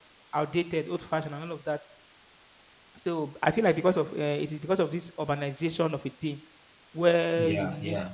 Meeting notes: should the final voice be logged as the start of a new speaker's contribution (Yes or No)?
No